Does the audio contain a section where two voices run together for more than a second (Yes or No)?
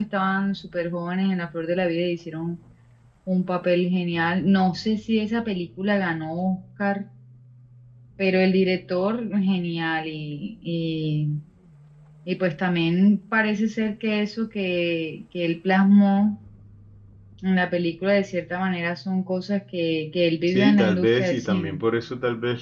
Yes